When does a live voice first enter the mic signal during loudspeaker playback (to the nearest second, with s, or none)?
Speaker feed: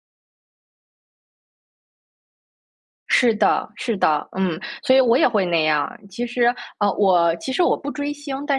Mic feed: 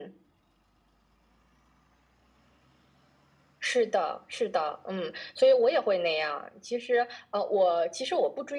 none